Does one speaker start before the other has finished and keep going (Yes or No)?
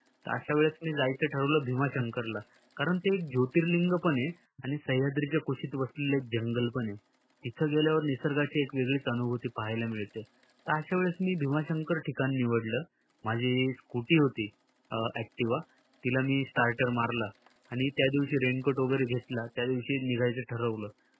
No